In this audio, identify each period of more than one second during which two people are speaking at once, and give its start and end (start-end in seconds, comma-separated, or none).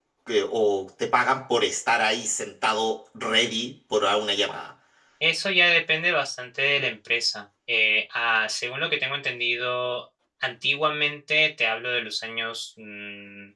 none